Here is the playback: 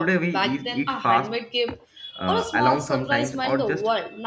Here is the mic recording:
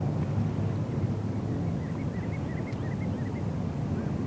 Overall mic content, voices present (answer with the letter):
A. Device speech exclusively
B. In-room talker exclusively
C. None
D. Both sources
C